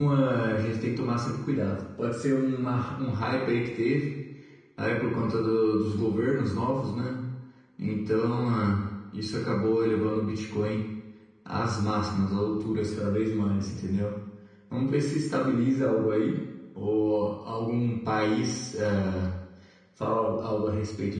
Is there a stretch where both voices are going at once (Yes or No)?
No